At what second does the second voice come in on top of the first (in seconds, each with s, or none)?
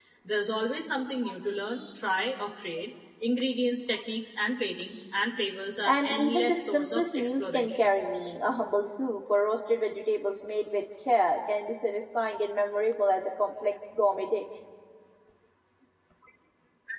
5.8 s